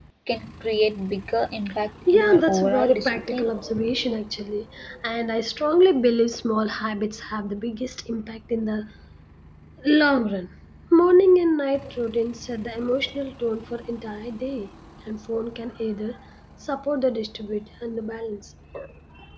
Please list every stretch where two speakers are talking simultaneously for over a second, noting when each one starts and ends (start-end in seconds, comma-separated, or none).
2.1-3.5